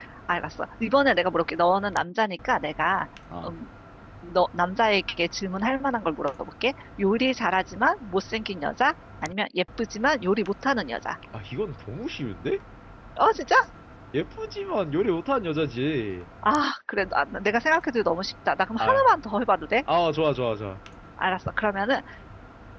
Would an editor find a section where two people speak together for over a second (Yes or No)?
No